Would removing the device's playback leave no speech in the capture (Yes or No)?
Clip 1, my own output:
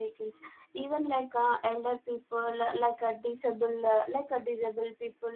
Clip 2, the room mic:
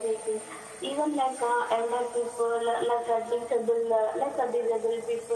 Yes